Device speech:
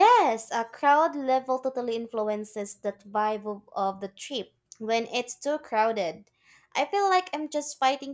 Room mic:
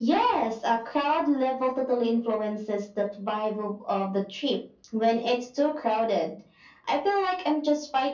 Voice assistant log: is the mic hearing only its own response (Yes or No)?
Yes